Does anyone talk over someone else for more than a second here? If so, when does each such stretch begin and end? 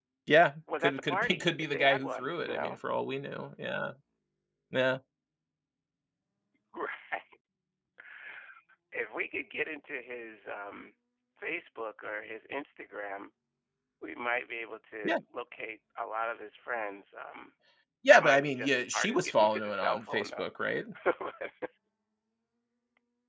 0.8-2.8, 18.1-20.8

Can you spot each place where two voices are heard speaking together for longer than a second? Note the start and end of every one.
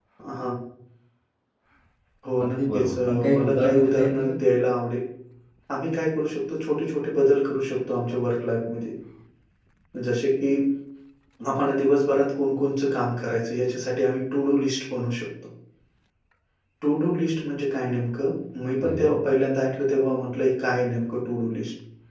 2.4-4.3

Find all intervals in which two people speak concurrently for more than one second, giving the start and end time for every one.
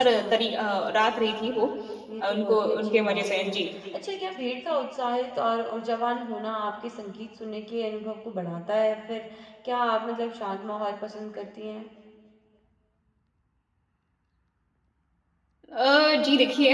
2.2-3.5

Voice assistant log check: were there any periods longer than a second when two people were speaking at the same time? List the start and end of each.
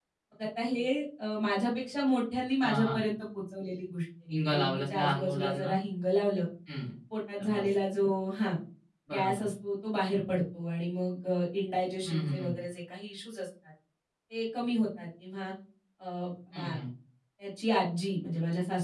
4.4-5.7

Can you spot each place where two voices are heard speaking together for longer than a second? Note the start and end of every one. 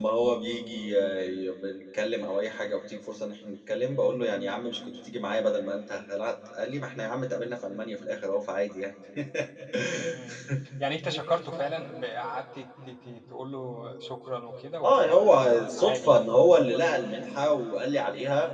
14.8-16.1

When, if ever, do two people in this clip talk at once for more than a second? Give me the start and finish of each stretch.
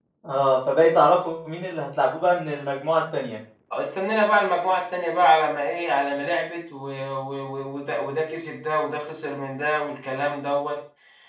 none

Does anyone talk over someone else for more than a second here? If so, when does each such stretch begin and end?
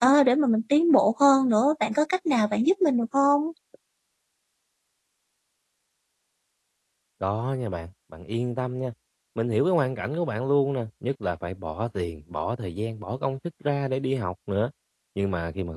none

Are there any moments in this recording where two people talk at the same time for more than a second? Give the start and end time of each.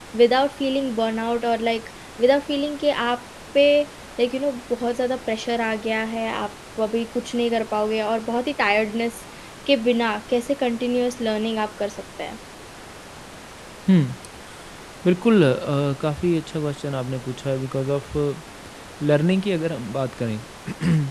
none

